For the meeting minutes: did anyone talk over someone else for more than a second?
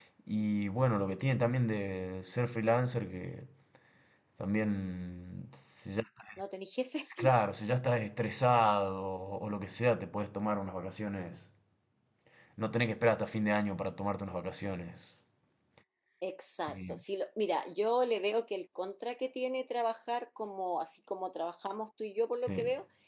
No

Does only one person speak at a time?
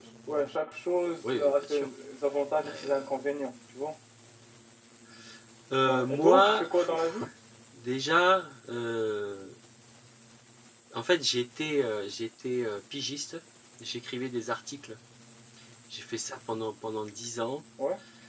No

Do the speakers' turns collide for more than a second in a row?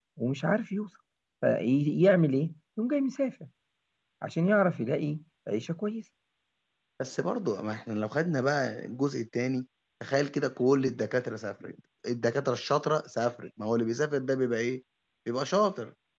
No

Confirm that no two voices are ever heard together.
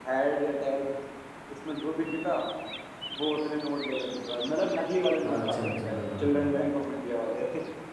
No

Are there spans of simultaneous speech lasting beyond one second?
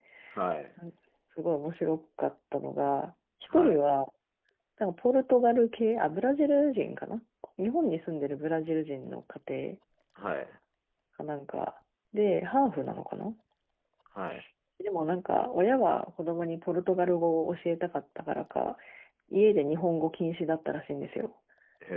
No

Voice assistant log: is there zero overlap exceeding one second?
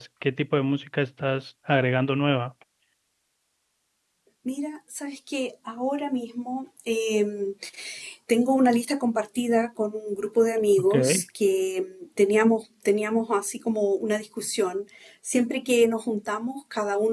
Yes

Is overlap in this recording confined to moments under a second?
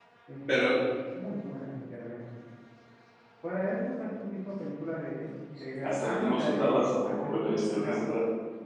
No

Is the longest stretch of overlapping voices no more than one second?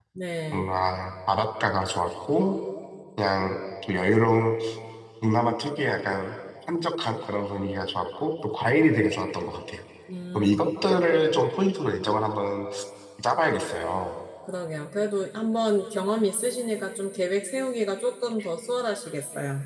Yes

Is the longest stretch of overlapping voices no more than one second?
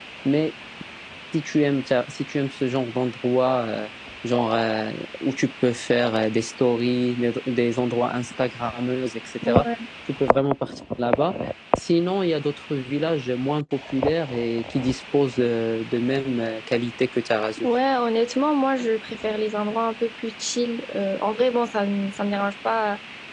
Yes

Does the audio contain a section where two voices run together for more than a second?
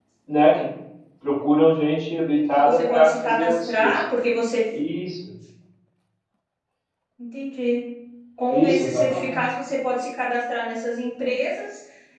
Yes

